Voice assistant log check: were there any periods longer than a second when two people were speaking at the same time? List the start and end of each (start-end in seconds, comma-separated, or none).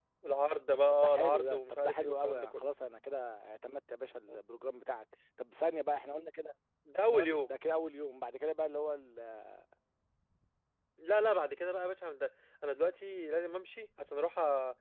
0.9-2.6